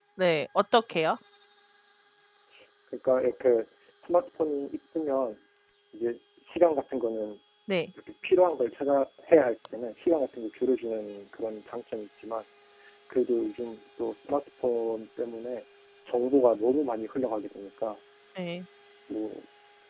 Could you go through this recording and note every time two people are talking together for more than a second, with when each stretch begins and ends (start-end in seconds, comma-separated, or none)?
none